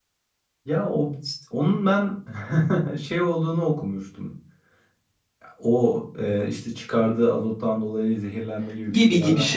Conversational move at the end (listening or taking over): taking over